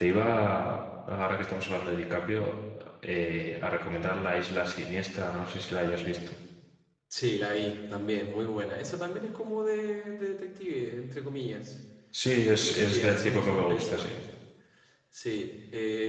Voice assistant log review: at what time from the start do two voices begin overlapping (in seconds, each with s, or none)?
12.6 s